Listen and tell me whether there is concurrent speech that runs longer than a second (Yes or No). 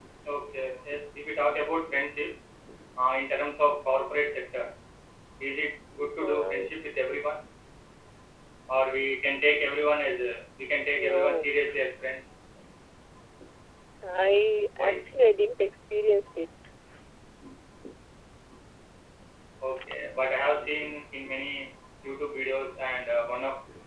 No